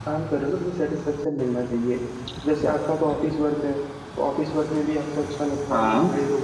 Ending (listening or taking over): listening